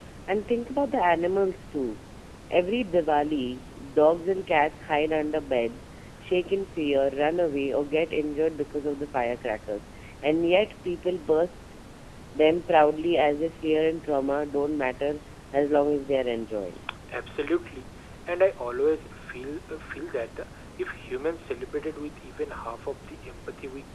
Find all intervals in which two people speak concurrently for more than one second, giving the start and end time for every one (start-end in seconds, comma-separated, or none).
none